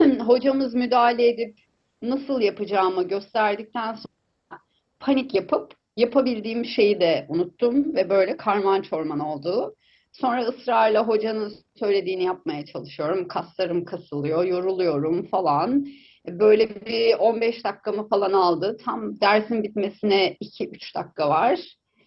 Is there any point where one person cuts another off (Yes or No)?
No